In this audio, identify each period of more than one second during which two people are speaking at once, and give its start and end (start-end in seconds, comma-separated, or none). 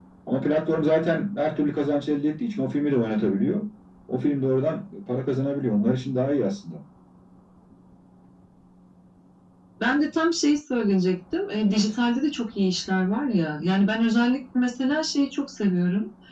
none